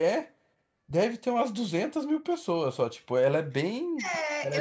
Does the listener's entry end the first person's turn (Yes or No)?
Yes